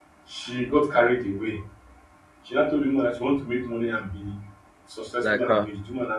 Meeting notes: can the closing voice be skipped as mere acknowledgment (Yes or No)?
Yes